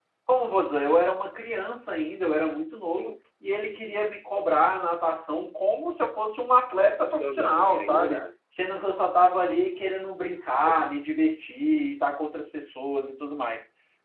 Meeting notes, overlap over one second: present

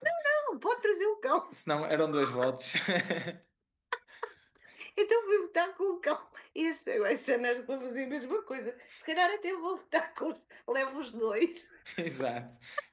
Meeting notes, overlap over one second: none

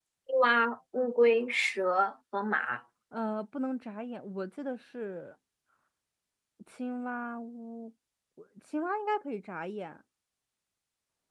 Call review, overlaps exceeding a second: none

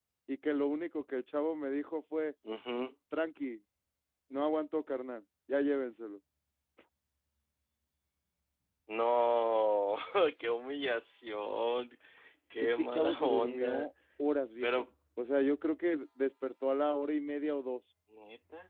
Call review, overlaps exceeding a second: present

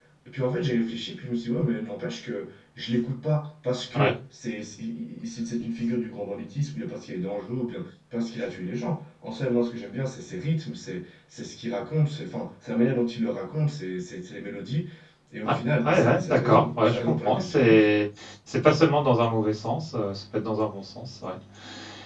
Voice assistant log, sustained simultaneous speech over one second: present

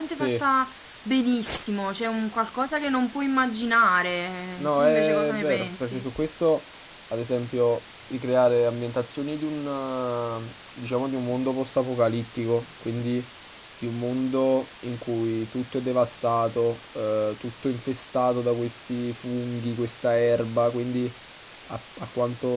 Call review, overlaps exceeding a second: present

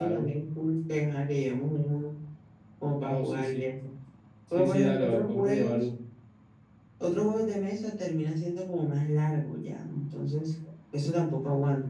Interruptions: present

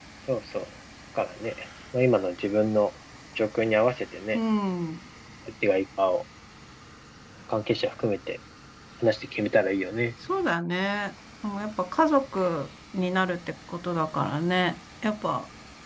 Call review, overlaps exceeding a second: none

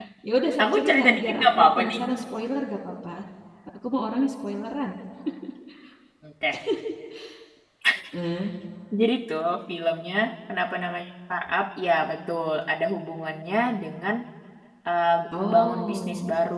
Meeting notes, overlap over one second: present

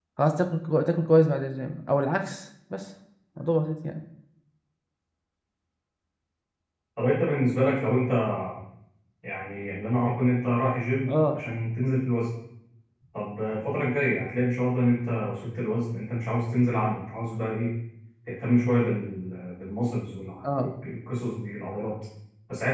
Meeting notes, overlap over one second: none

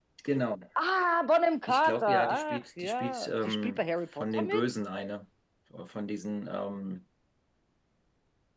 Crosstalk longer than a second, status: present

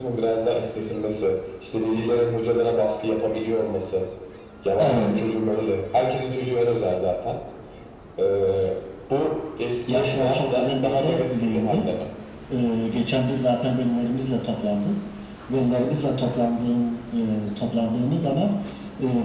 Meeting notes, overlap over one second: present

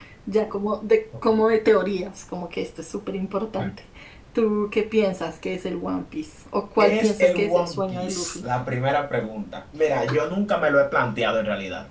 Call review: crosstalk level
present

